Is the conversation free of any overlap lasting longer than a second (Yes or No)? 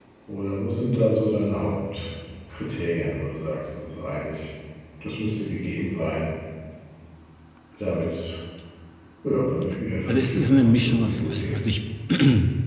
No